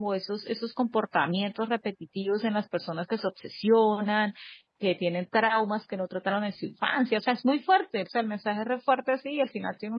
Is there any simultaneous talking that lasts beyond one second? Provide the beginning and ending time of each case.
none

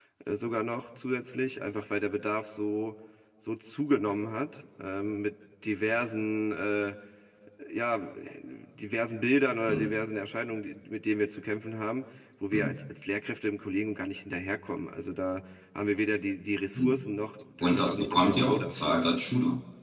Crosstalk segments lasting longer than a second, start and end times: 17.6-19.1

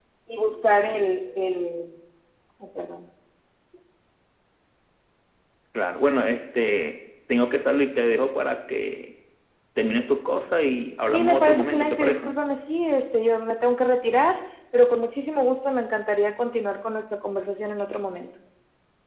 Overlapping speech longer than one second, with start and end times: 11.1-12.3

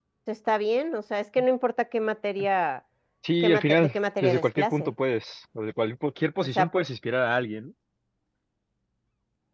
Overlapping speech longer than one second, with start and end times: 3.4-4.9

